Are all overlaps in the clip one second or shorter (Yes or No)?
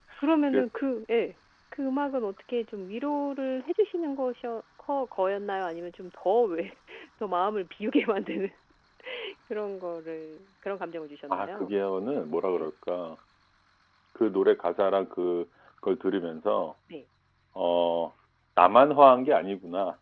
Yes